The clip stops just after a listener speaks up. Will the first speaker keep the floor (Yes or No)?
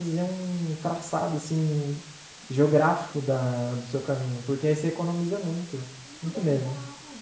No